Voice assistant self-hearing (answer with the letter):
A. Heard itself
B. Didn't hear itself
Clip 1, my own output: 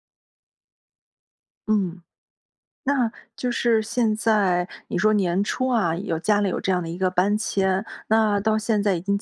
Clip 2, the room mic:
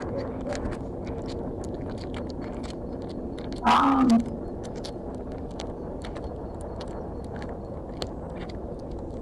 B